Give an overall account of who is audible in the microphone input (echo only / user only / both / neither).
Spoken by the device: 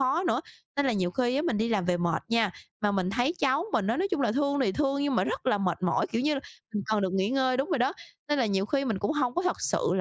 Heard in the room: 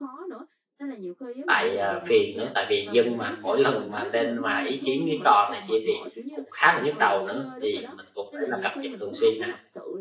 both